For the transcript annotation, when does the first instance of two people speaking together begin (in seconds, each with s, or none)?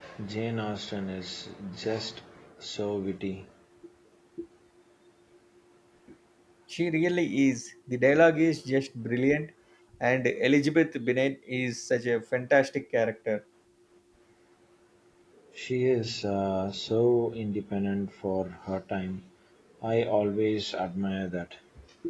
none